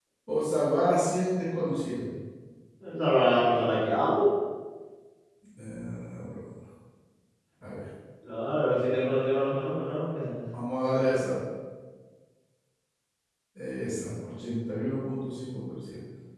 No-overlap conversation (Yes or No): Yes